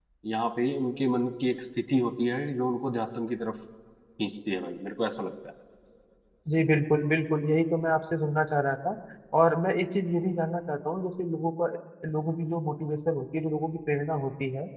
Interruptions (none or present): none